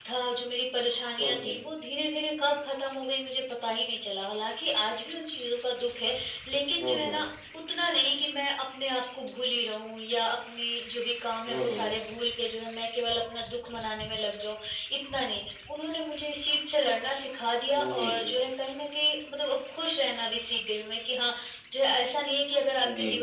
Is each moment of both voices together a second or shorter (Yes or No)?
Yes